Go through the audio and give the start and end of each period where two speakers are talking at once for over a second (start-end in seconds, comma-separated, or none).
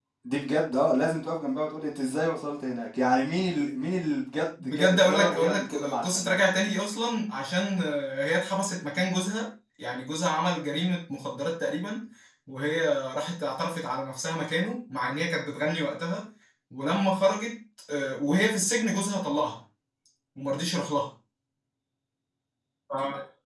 4.6-6.4